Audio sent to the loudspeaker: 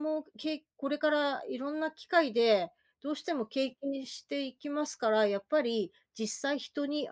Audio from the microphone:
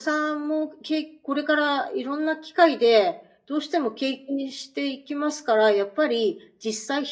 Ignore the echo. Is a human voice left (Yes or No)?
No